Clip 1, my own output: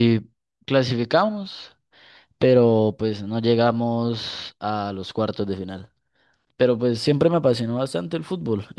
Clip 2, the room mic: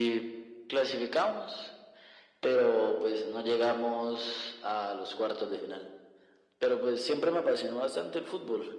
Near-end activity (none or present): none